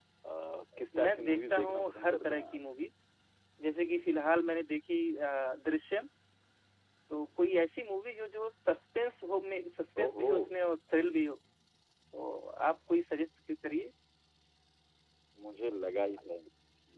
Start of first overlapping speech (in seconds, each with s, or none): 1.0 s